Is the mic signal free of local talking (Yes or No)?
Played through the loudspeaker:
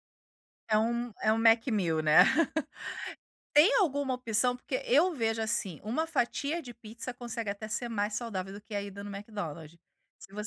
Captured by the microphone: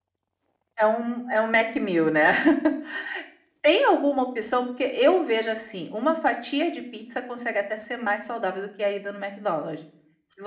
Yes